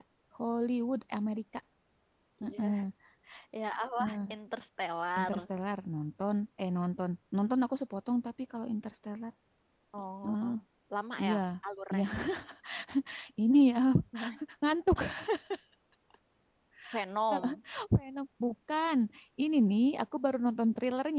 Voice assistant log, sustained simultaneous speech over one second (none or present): none